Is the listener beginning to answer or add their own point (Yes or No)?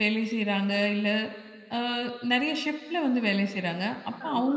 No